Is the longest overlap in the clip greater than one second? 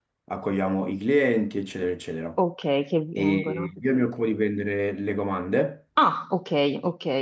No

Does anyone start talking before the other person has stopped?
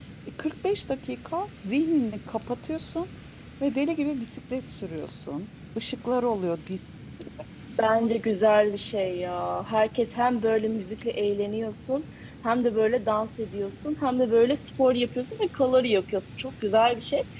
No

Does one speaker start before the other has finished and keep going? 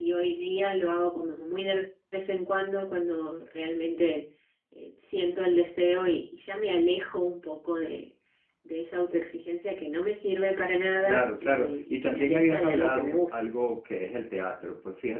Yes, from 11.0 s

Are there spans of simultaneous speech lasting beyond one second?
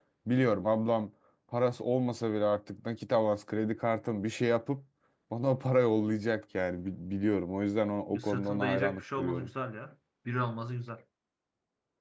Yes, from 8.1 s

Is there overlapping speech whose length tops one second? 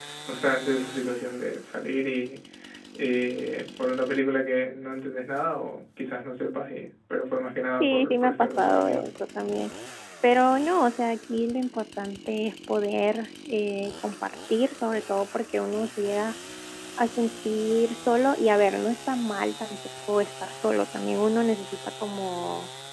Yes, from 7.8 s

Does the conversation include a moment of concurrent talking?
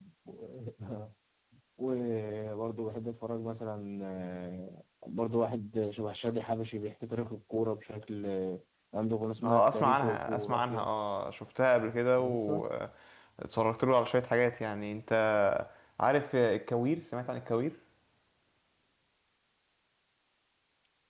Yes, from 9.4 s

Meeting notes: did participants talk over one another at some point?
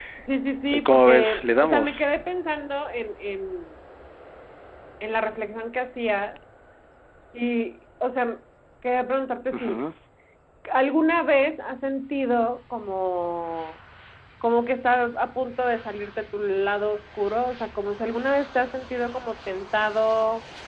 Yes, from 0.7 s

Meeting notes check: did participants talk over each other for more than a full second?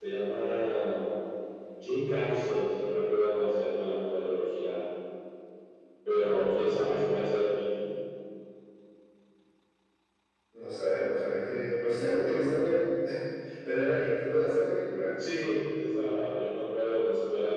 No

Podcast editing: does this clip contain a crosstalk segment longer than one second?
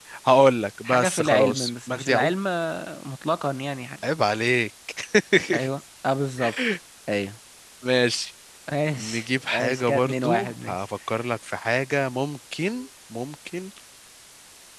Yes, from 0.8 s

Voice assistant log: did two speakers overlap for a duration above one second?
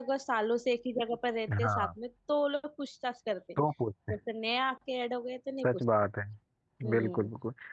No

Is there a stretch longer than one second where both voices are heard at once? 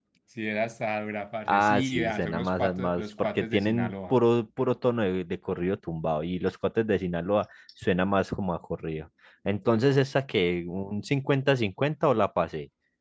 Yes, from 1.5 s

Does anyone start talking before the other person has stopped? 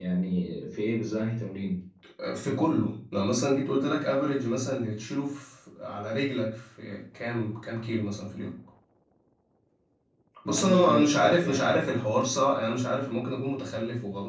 Yes, from 10.4 s

